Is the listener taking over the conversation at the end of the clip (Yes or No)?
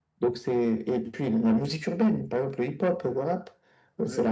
No